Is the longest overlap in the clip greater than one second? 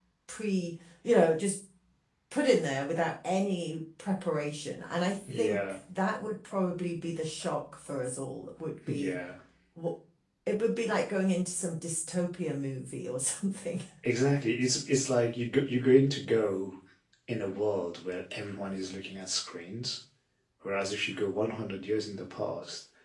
No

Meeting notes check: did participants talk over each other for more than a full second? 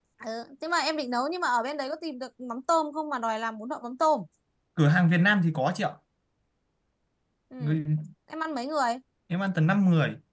No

